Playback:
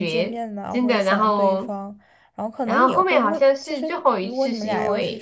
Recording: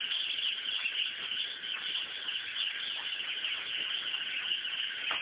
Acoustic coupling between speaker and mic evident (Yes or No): No